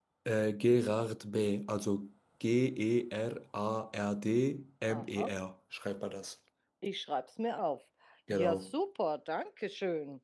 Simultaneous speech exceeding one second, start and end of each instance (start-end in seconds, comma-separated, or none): none